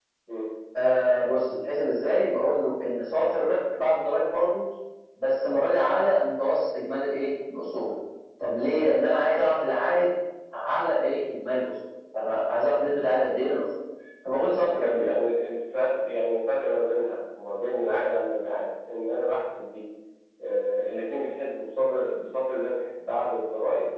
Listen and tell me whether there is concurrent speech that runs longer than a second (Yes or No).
No